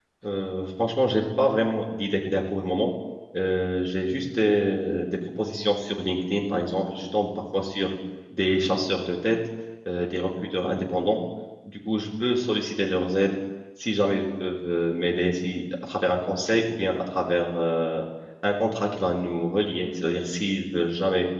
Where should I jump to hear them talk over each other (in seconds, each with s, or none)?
none